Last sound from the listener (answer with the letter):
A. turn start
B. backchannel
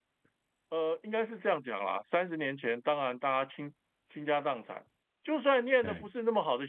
B